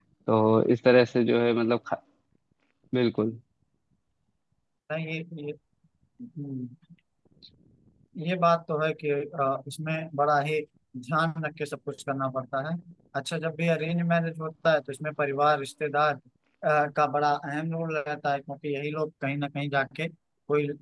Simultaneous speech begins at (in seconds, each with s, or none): none